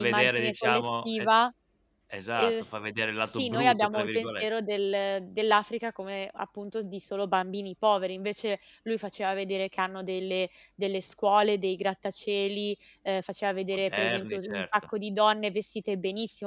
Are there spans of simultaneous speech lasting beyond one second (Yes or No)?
Yes